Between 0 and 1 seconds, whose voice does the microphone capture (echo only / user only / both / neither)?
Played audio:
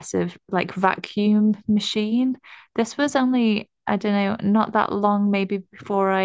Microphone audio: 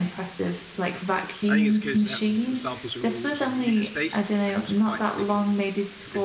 echo only